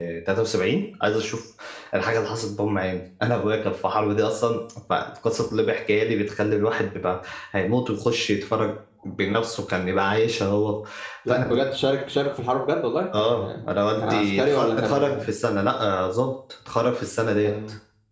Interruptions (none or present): present